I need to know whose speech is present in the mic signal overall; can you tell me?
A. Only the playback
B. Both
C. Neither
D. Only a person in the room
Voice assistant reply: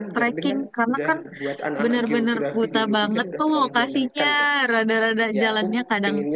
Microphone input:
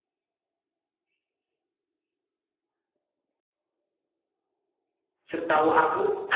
D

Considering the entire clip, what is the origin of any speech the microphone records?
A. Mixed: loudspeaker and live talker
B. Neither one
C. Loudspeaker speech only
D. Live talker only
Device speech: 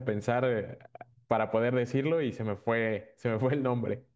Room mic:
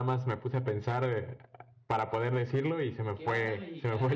A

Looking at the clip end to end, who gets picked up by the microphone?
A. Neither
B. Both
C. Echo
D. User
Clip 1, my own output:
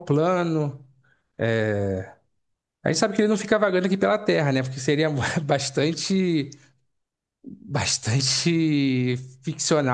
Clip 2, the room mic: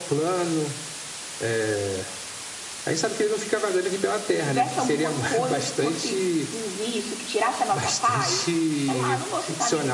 B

